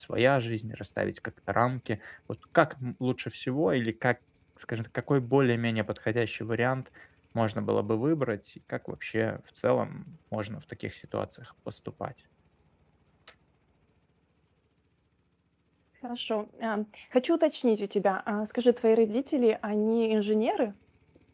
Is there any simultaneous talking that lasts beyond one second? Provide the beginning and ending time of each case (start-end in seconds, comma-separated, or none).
none